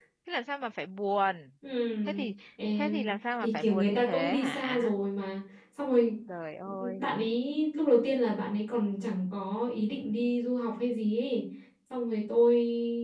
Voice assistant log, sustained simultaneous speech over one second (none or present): present